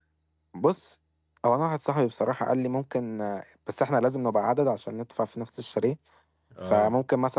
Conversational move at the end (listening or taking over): listening